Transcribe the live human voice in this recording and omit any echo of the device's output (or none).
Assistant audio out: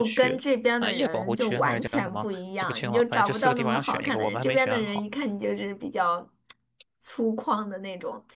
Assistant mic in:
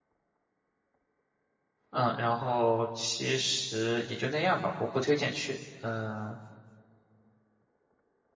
嗯，然后其实也就那样吧，我不推荐去，嗯、